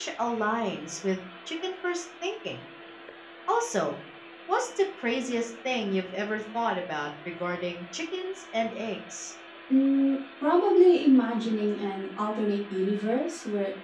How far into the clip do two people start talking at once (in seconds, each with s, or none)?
none